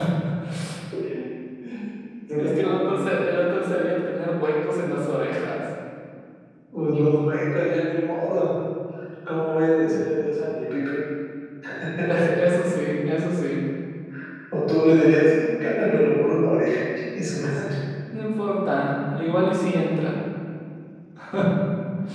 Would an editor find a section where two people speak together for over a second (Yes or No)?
No